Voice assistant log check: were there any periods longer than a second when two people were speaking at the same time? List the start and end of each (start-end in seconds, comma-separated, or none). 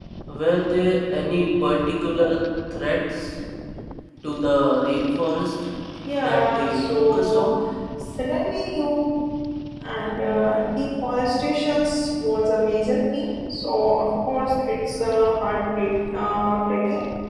6.2-7.5